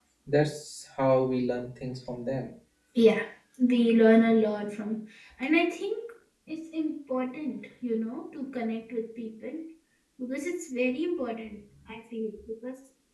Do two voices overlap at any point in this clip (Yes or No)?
No